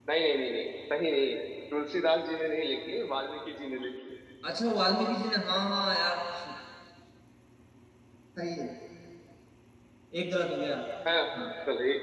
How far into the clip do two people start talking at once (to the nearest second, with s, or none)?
none